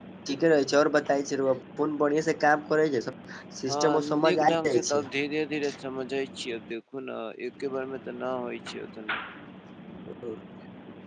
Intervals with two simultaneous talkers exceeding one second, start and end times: 3.7-5.0

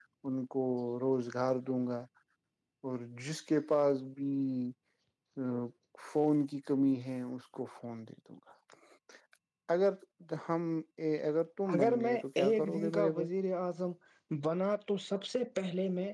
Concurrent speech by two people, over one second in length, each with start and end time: 11.7-13.3

